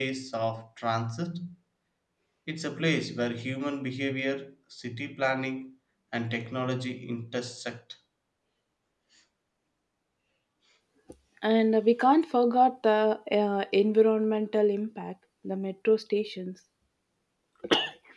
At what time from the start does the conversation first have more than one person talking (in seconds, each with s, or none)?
none